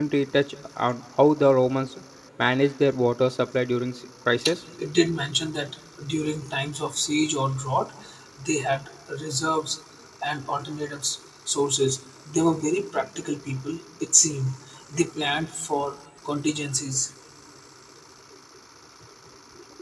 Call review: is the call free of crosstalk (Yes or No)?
Yes